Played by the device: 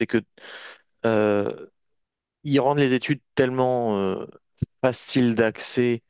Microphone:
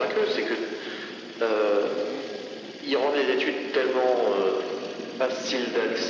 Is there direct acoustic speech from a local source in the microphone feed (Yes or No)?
No